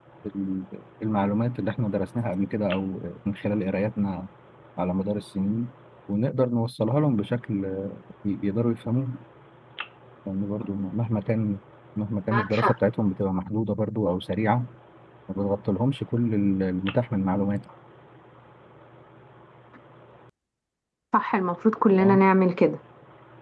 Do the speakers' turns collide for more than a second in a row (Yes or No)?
No